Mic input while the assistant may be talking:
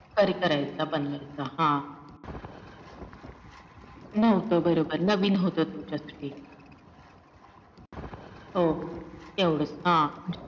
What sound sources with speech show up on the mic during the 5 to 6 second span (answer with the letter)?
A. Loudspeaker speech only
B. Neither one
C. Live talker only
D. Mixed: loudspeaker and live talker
A